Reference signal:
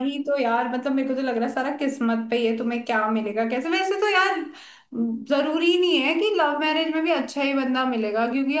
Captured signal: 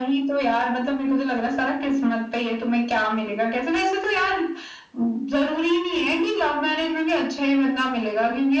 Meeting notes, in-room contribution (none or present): none